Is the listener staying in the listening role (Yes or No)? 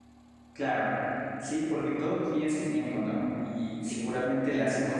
Yes